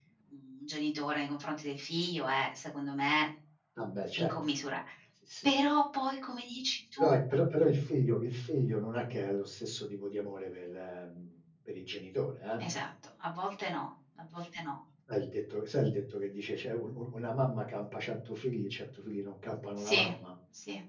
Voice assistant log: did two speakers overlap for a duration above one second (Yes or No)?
No